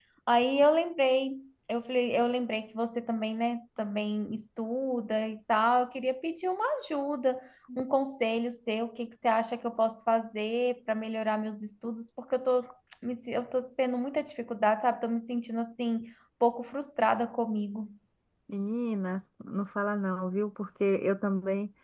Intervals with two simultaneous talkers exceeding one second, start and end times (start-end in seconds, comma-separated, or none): none